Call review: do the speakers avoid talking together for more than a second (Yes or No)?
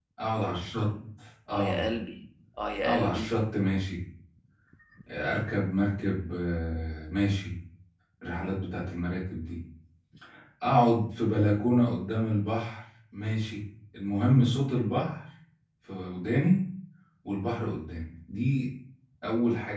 Yes